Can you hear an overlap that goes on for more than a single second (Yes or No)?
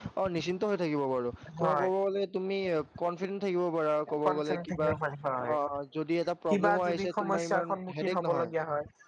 Yes